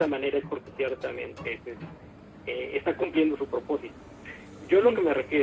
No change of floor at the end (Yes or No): Yes